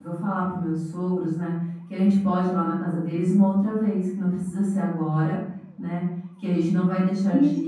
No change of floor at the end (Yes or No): Yes